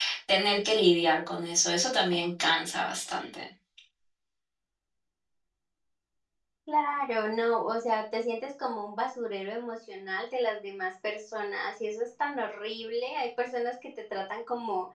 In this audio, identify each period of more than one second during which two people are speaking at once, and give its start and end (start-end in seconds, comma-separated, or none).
none